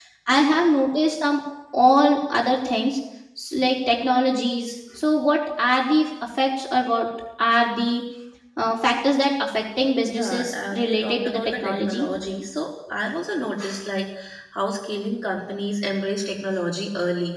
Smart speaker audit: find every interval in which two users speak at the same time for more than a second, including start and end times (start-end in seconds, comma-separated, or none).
10.1-12.1